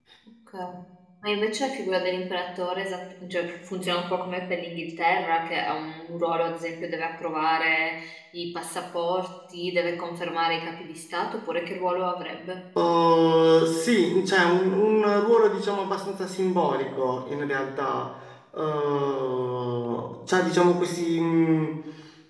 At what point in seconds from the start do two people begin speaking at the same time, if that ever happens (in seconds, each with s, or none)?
none